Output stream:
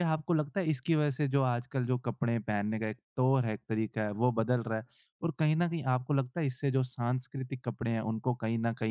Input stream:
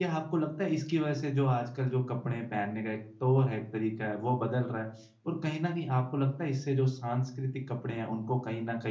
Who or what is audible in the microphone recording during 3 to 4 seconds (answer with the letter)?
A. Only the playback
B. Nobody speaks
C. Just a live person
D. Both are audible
A